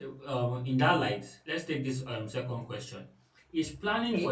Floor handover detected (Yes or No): No